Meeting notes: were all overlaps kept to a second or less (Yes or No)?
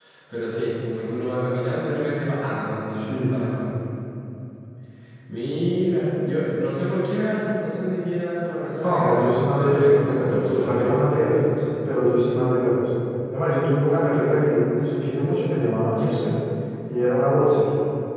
No